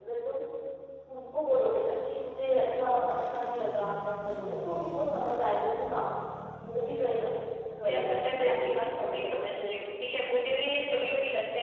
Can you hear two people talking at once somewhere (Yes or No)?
Yes